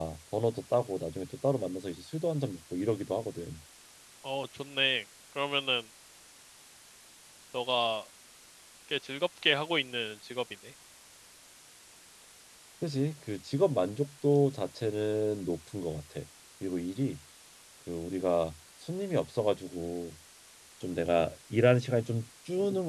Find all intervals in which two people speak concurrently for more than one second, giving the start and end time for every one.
none

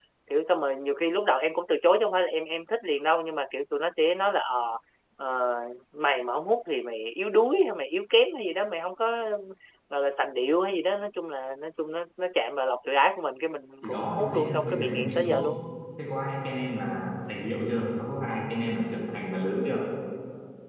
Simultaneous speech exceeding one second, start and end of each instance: 13.8-15.5

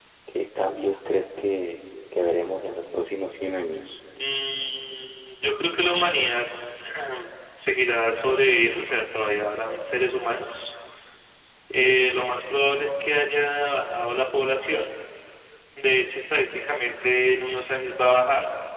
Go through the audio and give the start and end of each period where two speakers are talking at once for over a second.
none

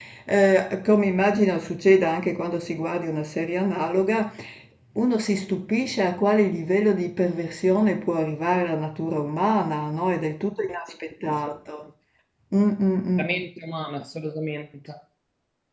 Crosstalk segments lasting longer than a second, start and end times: none

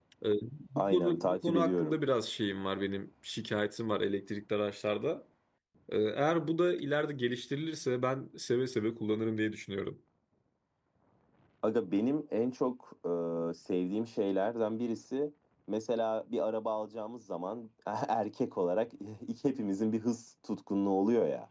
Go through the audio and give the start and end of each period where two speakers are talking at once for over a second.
0.8-2.0

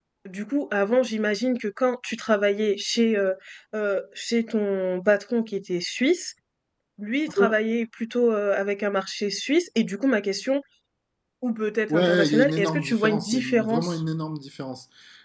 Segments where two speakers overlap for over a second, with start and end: 11.9-14.0

